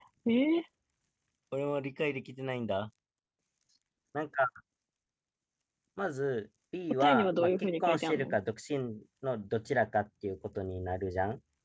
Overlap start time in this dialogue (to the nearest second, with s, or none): 7 s